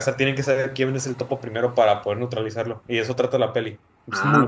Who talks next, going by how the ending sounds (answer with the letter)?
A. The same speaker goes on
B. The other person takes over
B